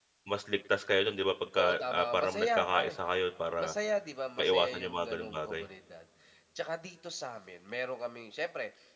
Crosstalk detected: Yes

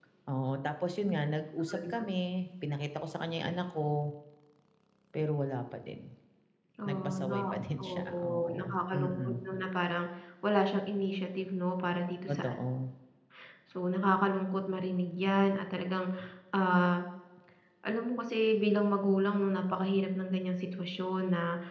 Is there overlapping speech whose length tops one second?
Yes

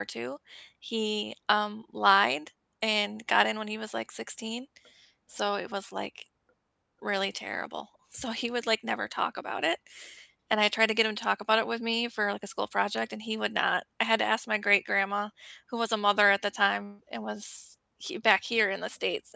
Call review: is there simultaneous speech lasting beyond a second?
No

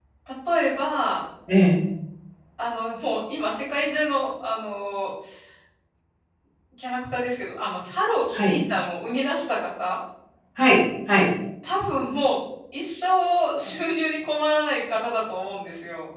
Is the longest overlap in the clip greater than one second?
No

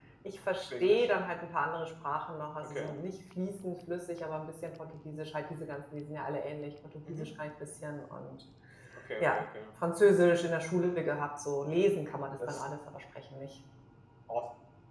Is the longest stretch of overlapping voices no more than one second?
Yes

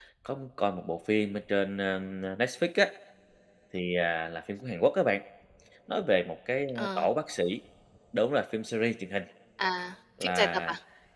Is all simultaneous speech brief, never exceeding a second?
Yes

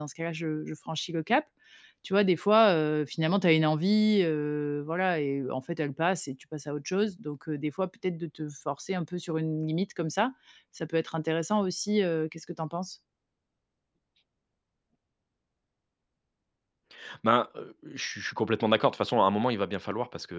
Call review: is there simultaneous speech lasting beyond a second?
No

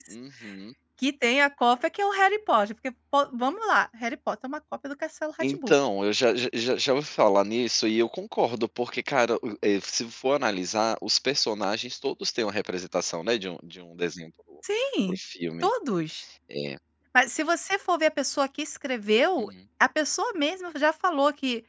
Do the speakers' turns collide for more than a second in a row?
No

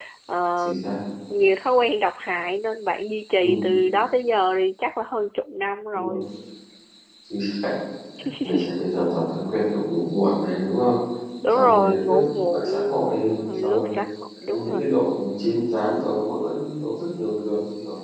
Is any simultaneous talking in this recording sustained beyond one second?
Yes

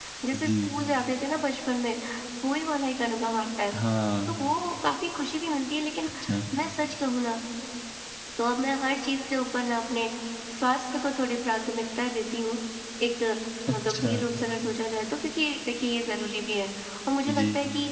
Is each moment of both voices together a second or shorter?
Yes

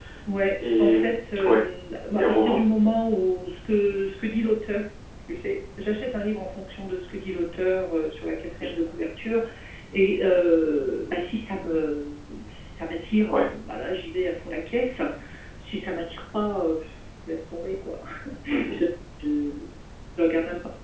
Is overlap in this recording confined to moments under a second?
Yes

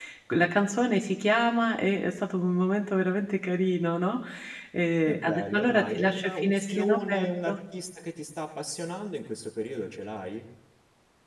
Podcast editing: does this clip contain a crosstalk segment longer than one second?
Yes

